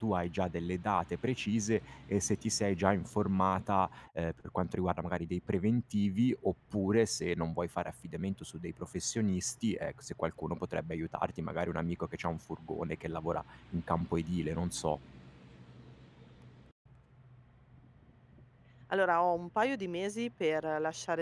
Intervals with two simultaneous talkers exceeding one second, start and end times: none

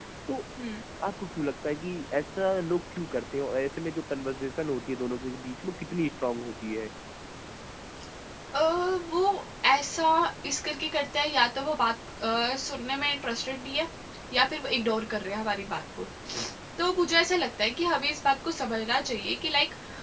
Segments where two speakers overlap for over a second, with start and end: none

